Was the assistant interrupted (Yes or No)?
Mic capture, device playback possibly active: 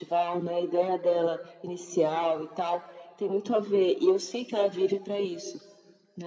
No